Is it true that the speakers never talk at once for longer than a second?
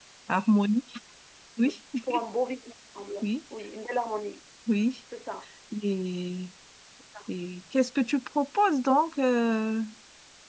Yes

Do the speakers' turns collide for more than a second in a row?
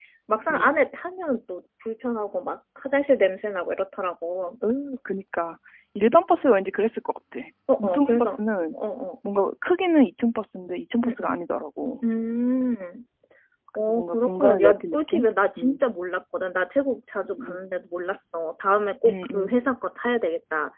Yes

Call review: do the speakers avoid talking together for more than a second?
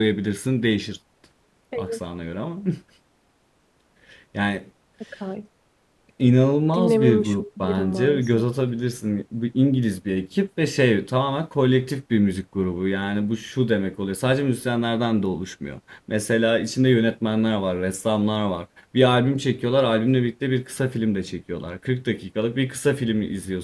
No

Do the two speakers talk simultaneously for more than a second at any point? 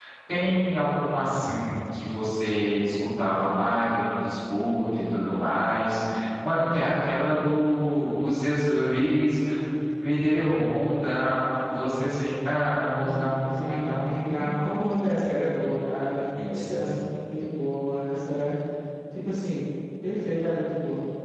Yes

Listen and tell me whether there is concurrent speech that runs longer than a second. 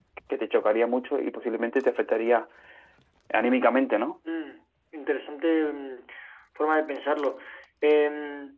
No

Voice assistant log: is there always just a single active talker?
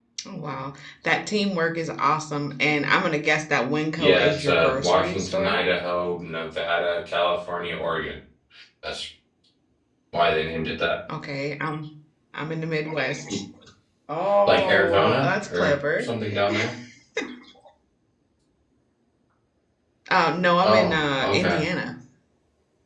No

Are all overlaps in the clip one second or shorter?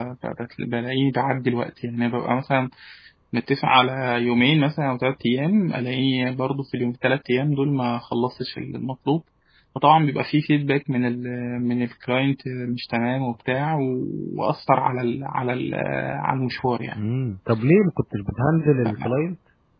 Yes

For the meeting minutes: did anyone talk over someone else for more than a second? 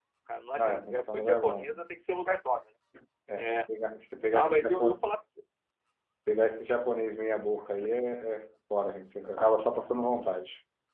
Yes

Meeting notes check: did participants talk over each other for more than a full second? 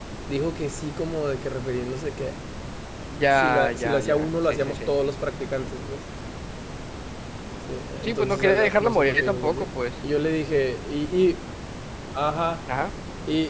Yes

